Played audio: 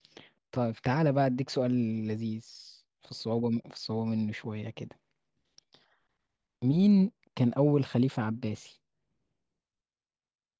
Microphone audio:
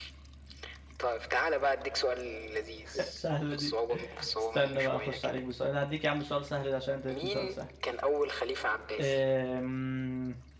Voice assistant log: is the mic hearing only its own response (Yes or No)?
No